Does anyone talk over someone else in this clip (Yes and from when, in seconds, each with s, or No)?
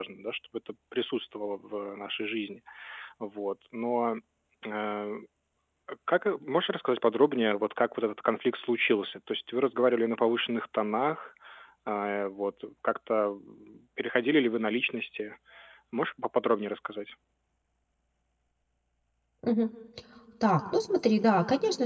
No